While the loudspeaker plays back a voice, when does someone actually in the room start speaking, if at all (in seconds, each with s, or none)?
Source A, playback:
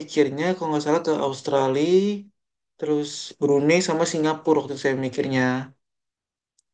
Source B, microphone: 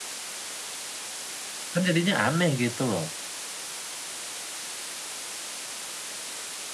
1.7 s